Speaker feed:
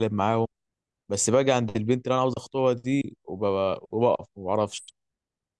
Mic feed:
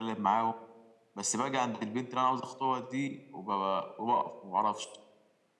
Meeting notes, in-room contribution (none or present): none